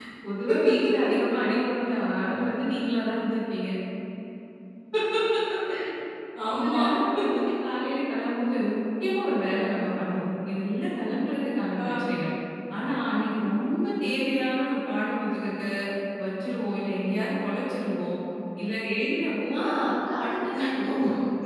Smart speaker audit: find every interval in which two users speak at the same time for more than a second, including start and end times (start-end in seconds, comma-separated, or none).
none